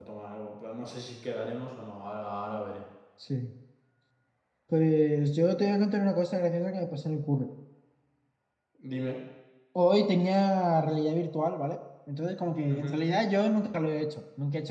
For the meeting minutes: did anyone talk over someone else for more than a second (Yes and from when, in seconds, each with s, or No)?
No